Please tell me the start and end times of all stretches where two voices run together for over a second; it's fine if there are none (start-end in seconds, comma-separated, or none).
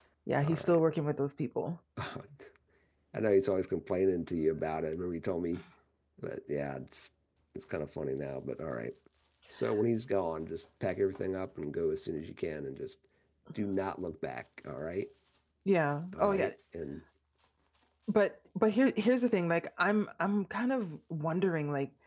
none